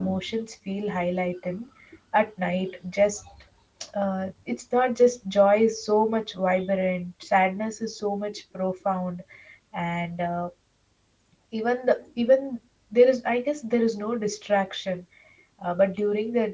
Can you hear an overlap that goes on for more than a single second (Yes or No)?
No